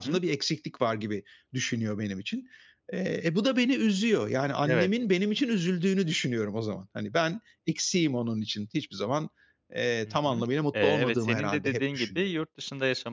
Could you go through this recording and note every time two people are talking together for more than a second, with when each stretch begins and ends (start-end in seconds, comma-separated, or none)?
10.8-12.2